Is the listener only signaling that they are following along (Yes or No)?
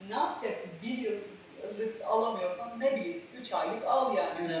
No